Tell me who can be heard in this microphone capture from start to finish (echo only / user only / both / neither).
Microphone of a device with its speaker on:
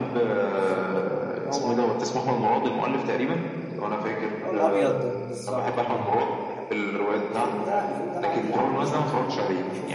both